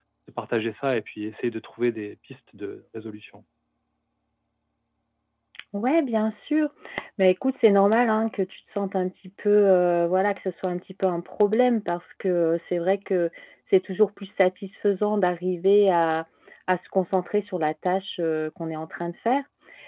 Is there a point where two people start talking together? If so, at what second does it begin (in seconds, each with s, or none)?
none